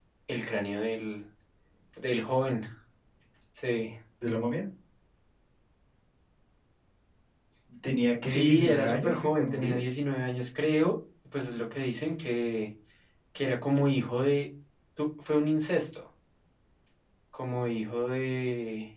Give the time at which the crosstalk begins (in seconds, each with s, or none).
8.2 s